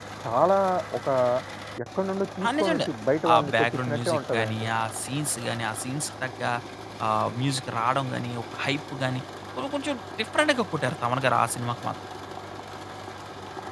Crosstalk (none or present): present